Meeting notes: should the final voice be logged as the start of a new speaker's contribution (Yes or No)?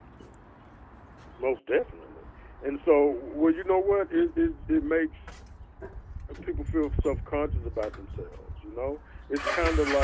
No